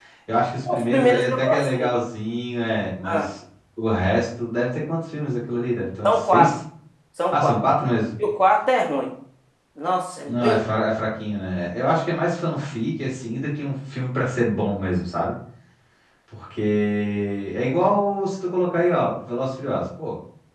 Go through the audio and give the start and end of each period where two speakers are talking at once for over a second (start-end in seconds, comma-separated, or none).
0.7-1.9